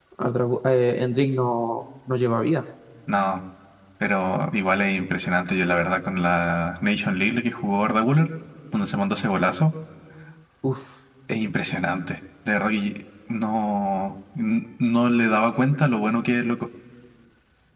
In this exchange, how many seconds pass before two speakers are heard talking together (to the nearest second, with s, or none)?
none